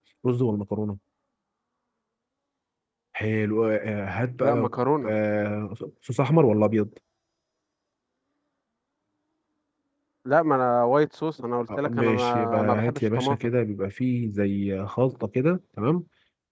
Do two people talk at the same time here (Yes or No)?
Yes